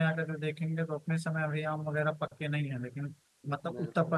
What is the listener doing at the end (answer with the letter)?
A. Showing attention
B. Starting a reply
A